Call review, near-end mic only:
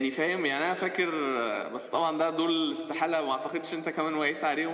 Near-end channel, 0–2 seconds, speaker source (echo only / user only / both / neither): echo only